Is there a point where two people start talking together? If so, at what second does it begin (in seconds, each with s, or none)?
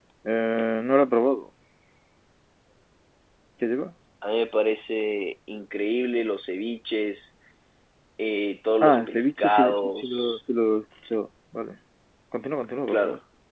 8.8 s